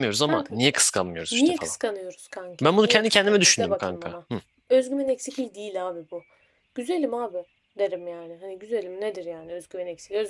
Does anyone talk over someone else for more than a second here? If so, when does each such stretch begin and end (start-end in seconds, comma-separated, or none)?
2.6-4.1